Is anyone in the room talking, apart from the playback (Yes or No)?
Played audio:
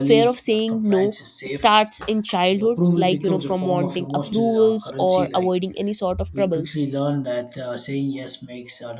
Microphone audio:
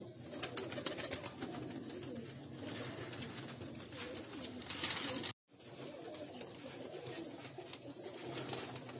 No